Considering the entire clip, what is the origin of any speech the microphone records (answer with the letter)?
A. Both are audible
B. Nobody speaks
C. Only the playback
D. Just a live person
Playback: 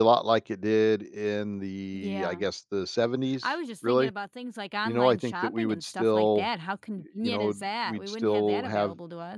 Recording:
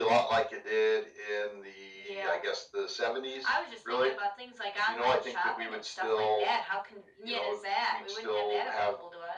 C